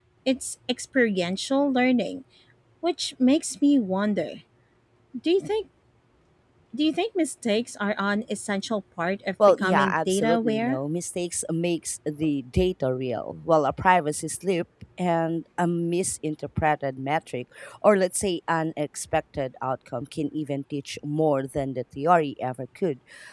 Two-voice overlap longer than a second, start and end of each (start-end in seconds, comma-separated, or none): 9.5-10.8